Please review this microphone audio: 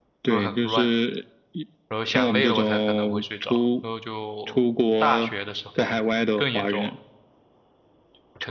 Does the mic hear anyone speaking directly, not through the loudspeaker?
Yes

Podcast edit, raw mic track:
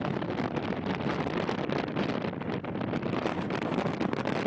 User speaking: No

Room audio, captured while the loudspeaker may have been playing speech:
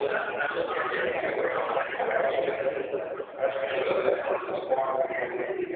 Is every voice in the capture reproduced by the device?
Yes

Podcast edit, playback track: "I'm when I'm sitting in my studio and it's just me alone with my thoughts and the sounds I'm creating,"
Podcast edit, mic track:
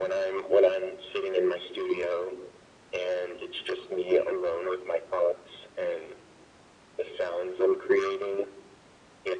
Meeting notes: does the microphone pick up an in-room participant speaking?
No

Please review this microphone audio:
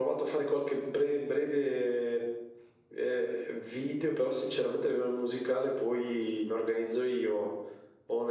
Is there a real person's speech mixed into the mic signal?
No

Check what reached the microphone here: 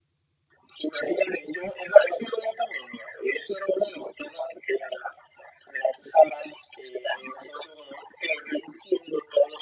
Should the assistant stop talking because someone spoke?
No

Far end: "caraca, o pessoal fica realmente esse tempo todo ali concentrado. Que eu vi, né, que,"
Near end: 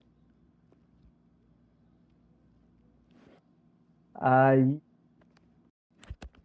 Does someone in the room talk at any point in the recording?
Yes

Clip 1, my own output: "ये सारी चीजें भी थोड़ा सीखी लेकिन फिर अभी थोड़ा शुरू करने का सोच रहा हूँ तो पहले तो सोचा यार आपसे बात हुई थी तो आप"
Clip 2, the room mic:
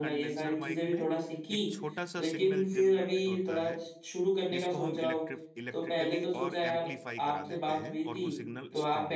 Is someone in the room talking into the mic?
Yes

